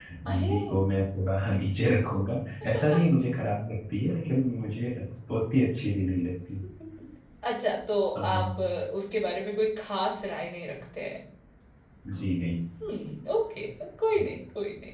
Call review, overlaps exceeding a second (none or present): none